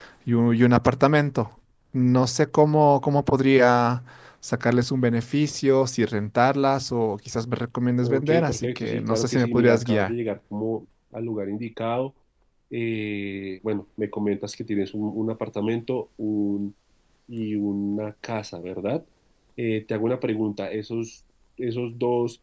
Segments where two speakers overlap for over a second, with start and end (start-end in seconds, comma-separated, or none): 8.0-10.1